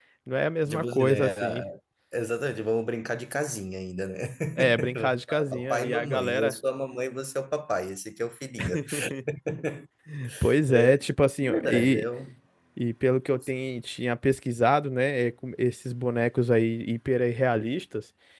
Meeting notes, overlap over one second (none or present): present